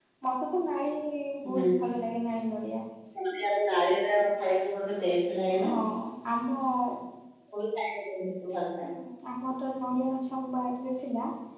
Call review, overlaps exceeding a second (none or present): none